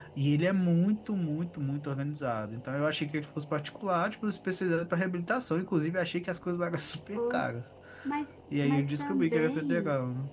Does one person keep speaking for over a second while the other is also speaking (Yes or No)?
Yes